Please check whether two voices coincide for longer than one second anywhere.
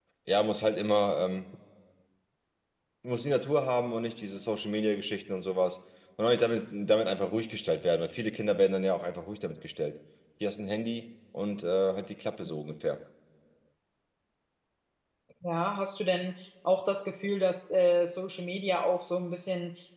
No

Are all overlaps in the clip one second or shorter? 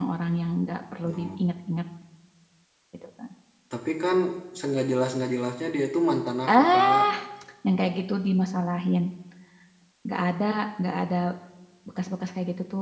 Yes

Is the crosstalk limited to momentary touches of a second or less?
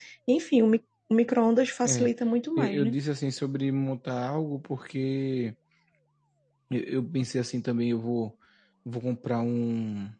Yes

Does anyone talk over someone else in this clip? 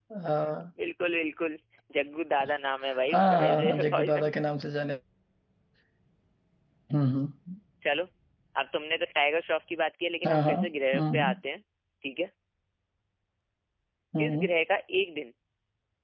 Yes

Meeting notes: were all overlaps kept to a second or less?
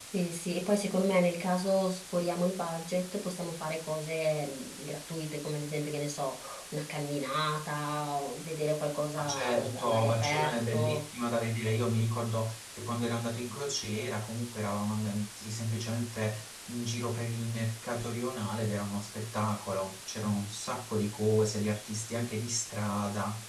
No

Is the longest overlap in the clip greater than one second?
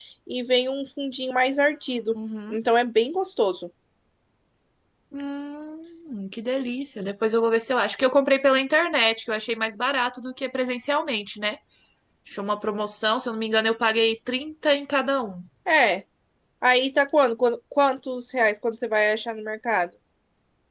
No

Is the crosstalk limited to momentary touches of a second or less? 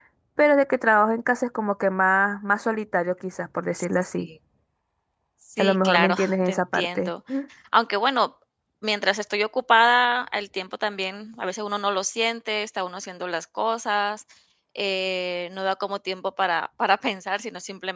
No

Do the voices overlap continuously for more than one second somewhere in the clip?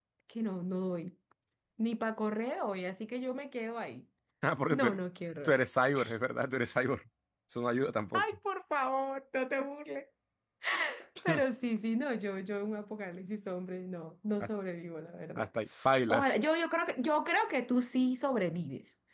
No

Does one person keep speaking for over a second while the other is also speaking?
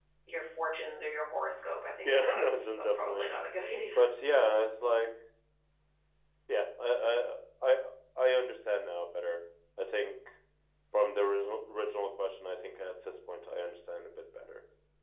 Yes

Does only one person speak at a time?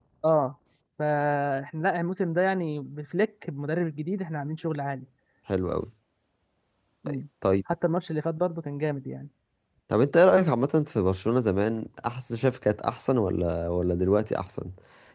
Yes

